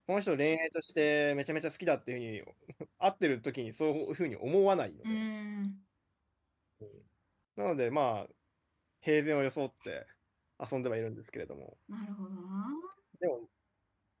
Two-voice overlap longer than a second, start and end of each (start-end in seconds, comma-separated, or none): none